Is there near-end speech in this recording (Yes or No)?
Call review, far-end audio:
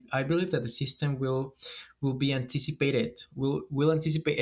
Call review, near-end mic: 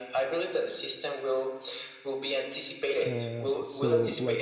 Yes